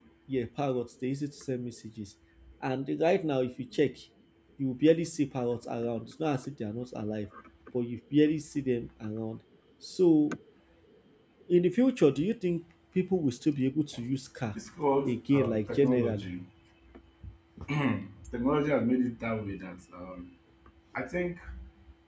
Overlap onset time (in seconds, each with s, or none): 15.1 s